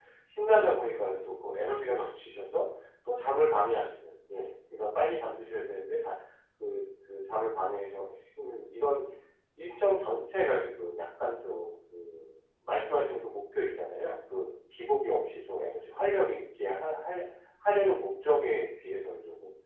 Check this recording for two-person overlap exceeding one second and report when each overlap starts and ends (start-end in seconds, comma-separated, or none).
none